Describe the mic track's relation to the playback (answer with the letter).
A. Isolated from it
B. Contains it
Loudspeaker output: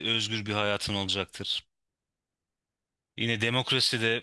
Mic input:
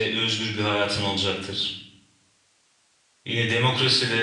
B